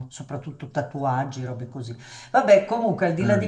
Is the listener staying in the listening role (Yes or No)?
Yes